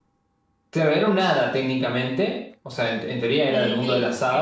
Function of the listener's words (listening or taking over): taking over